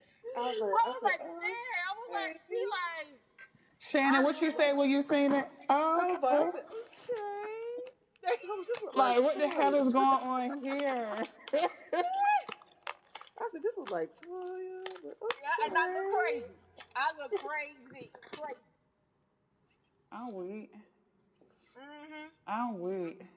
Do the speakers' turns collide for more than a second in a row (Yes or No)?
Yes